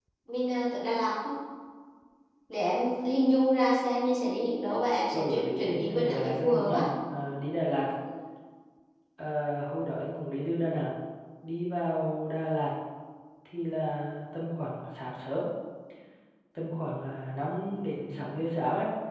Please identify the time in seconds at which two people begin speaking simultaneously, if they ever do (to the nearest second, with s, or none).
5 s